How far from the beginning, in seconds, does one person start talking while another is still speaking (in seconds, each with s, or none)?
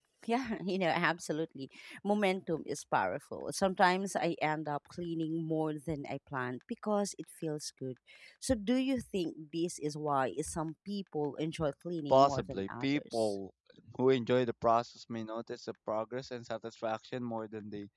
12.1 s